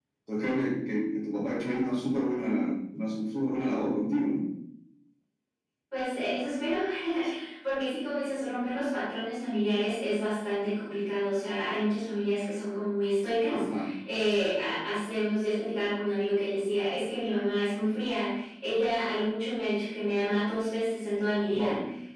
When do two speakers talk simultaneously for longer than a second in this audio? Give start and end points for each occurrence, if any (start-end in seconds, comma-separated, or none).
none